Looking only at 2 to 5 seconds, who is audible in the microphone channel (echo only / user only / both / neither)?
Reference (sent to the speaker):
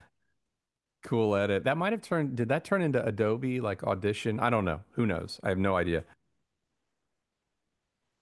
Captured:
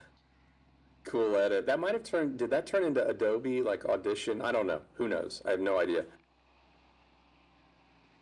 echo only